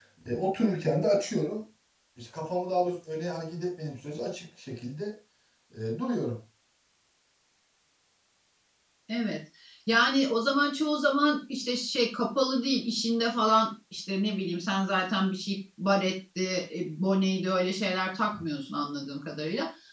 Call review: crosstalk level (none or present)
none